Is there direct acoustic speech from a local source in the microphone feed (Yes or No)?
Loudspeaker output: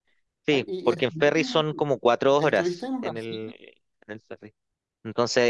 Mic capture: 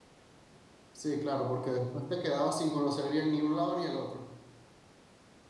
Yes